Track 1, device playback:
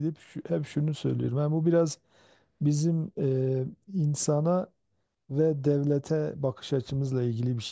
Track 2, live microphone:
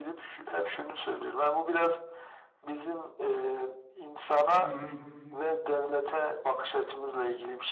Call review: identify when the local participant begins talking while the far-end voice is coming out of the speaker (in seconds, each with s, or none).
4.6 s